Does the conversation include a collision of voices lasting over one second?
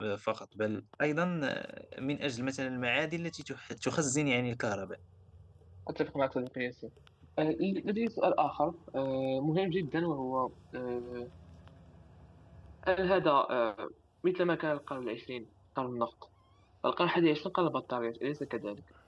No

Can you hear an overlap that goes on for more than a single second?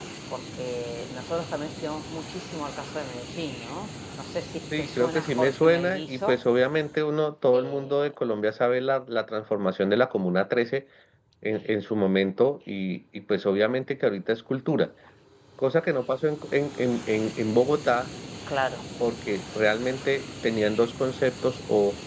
Yes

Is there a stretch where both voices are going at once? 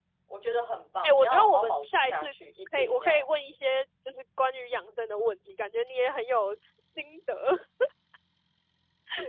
Yes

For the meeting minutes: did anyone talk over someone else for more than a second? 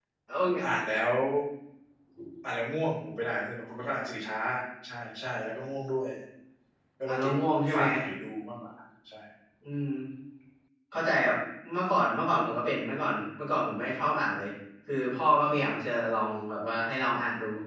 No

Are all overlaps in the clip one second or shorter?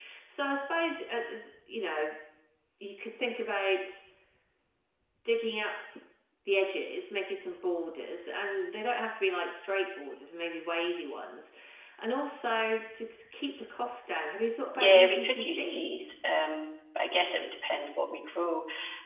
No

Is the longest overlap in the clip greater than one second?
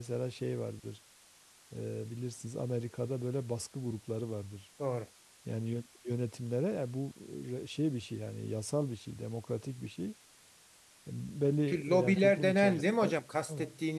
Yes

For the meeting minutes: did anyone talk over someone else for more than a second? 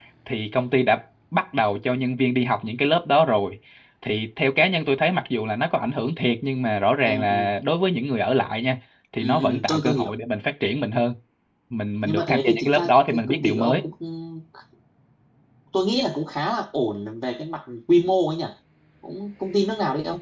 Yes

